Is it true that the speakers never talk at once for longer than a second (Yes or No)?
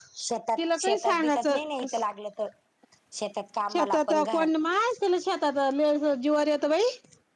No